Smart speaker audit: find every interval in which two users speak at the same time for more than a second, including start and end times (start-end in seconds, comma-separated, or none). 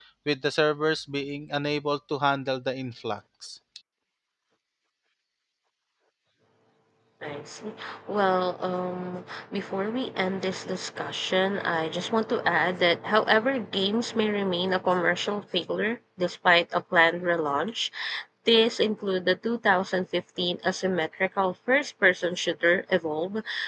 none